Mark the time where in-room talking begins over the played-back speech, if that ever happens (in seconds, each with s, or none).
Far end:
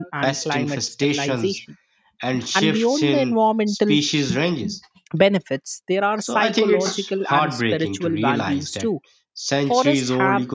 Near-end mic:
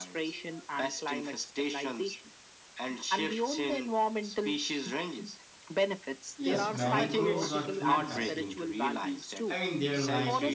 6.4 s